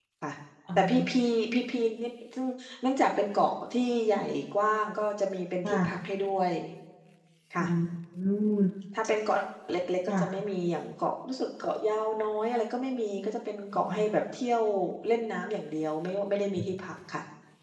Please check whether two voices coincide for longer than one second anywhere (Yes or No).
No